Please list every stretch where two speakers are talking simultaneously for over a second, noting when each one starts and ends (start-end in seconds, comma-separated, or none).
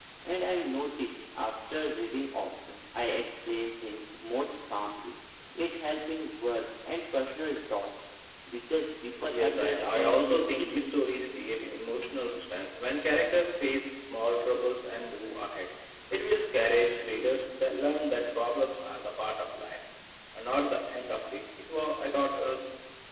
9.3-11.0